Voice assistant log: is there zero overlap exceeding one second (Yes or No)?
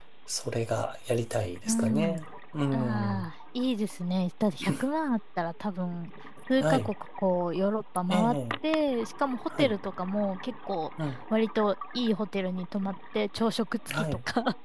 Yes